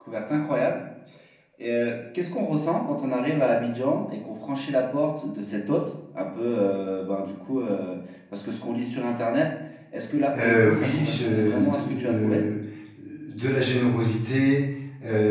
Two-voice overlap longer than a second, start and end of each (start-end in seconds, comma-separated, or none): 10.3-12.4